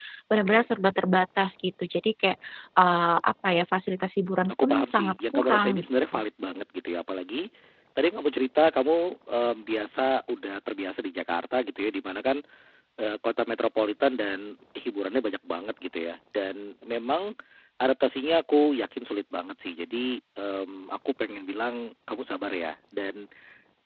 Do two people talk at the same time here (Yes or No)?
Yes